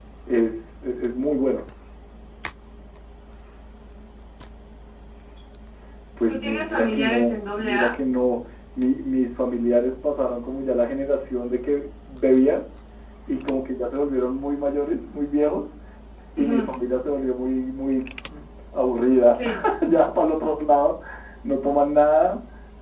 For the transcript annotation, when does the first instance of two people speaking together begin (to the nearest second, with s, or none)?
6 s